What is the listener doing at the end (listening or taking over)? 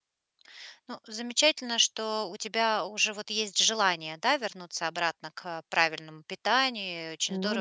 listening